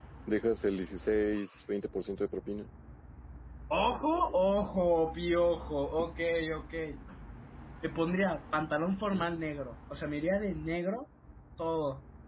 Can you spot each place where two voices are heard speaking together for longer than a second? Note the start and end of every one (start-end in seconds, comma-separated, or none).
none